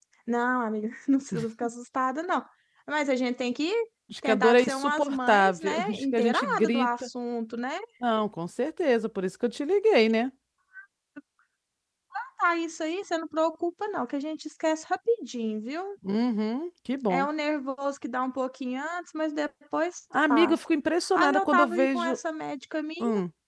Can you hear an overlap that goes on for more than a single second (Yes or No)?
Yes